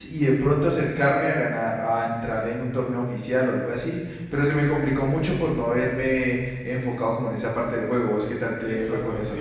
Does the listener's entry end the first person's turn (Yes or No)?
Yes